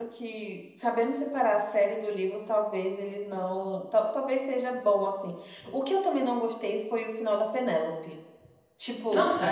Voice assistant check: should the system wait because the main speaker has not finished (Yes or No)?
Yes